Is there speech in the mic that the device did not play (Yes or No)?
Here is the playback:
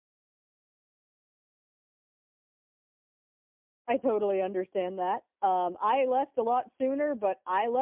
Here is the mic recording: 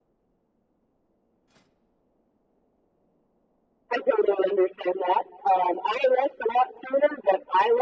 No